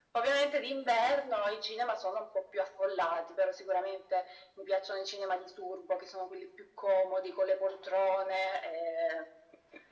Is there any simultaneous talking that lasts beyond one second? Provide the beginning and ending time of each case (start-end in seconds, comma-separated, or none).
none